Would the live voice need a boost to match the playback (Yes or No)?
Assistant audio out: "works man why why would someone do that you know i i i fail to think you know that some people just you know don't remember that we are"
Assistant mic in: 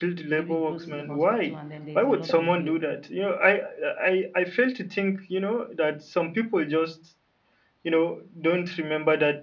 Yes